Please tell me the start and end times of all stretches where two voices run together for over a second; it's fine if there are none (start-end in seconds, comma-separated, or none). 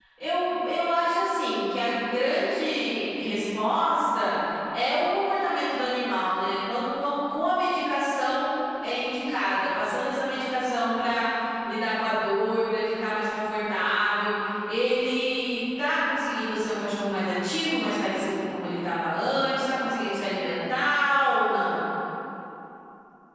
none